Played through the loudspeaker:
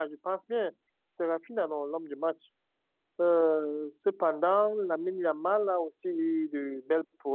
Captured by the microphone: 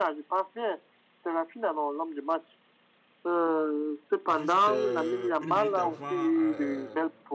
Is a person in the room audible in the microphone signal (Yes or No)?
Yes